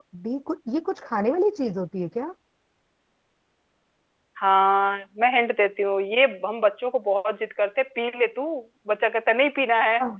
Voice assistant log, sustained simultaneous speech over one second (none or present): none